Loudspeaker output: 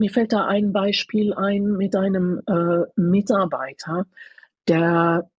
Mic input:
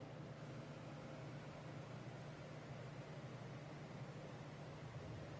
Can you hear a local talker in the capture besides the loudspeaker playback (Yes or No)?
No